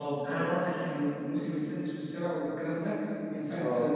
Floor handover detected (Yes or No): No